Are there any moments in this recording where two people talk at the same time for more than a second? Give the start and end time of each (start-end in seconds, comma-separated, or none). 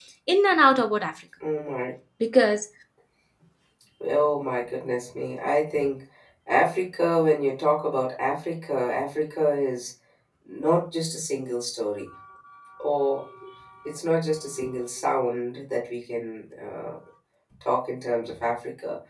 none